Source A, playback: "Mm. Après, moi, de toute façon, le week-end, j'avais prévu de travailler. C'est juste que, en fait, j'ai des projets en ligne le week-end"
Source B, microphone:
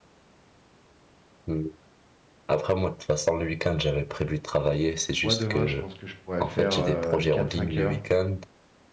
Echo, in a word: present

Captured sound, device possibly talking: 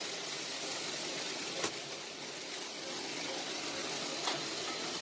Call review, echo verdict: none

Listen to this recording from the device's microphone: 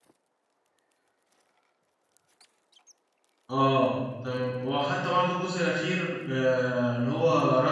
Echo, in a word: none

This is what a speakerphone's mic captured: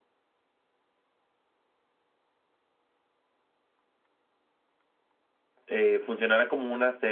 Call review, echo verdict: none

